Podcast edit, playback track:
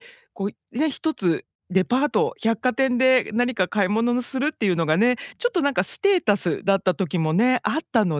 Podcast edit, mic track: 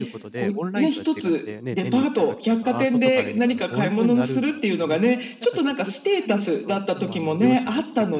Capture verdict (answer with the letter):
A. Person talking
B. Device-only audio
A